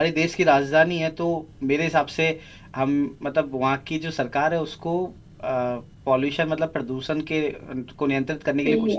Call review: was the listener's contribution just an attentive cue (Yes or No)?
No